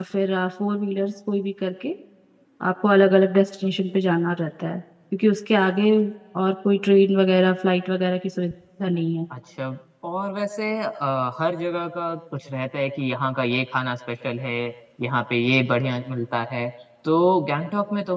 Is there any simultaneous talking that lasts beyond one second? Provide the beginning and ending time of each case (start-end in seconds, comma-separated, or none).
none